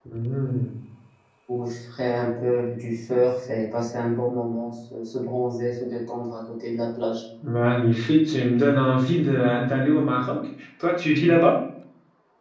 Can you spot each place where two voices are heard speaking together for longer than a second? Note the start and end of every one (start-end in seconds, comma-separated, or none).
none